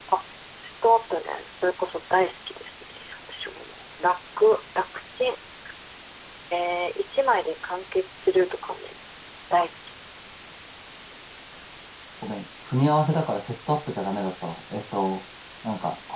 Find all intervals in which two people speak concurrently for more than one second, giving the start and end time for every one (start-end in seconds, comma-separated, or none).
none